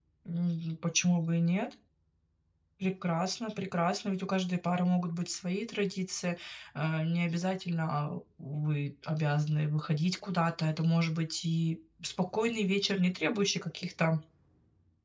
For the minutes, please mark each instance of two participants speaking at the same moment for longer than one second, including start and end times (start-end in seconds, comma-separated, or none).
none